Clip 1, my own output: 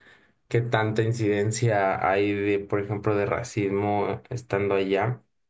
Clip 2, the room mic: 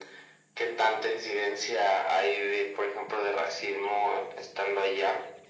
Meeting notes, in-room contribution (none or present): none